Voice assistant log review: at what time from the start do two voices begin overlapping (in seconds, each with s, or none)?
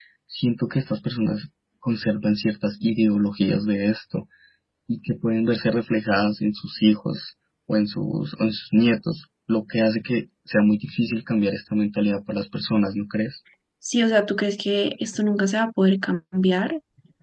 none